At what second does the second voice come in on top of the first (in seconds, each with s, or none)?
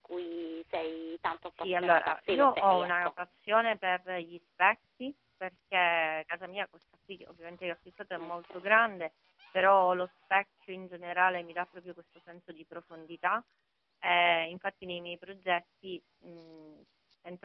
1.6 s